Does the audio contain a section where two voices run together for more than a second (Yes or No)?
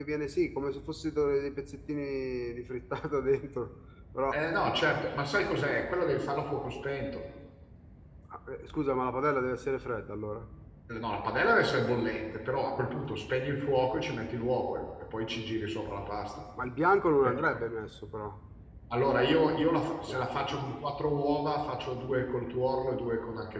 No